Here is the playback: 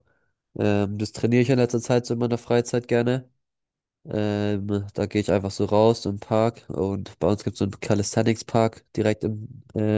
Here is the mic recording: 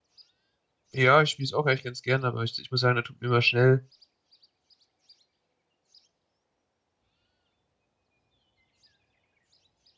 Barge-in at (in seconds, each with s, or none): 0.9 s